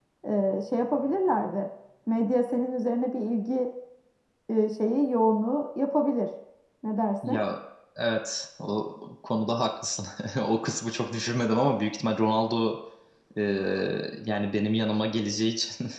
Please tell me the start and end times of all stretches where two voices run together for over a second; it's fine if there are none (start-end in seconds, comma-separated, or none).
none